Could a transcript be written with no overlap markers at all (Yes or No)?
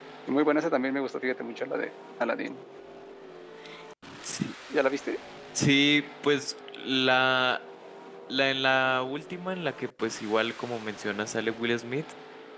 Yes